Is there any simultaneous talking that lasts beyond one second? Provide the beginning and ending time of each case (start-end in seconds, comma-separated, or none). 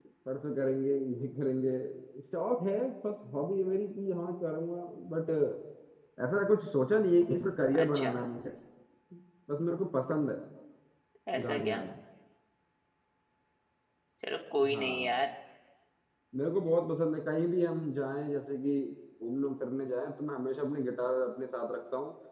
none